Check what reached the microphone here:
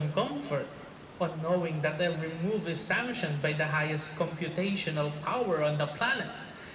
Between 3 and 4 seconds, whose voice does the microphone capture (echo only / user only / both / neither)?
echo only